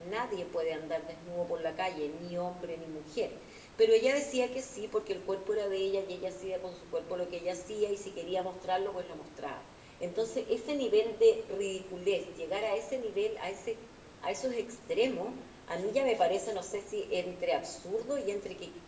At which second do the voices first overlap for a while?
none

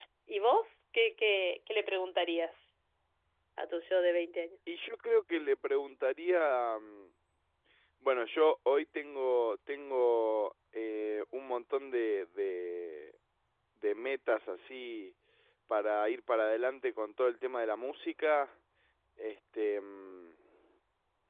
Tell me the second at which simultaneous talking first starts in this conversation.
none

